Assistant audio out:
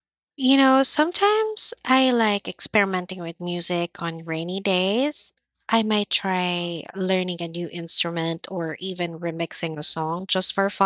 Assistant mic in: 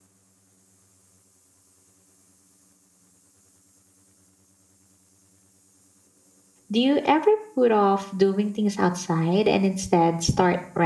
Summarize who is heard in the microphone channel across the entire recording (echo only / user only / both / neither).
user only